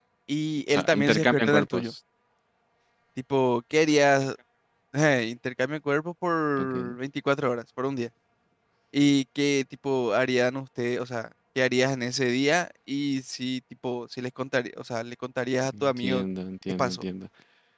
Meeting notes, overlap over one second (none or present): present